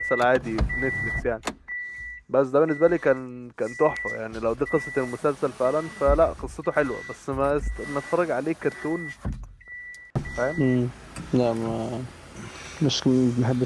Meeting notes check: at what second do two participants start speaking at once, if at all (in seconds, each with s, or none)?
none